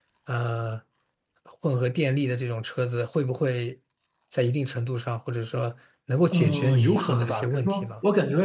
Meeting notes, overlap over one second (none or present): present